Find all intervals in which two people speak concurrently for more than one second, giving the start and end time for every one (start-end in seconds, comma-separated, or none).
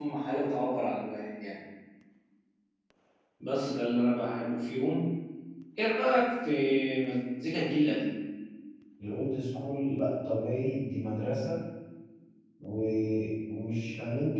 none